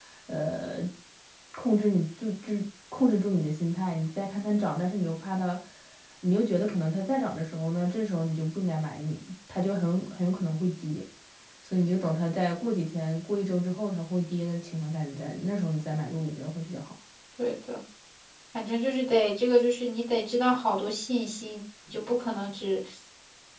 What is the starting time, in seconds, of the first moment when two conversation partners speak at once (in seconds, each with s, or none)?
none